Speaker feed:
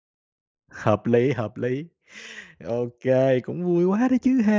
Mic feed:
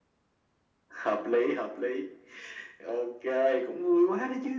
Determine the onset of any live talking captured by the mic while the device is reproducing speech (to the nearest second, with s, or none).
none